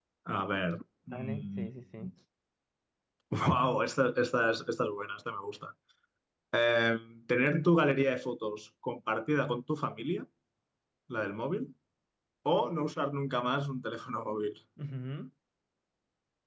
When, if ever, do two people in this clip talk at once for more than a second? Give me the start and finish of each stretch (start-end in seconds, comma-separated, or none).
none